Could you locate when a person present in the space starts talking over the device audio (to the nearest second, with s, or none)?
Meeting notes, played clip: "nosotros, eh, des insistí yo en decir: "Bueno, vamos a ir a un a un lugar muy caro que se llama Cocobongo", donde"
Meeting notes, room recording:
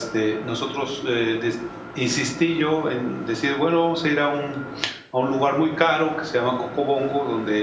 none